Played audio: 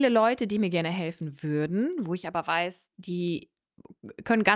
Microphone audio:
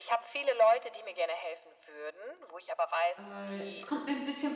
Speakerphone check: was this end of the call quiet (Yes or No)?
No